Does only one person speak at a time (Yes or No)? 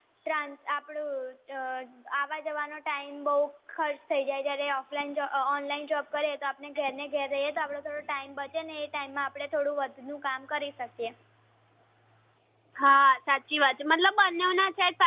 Yes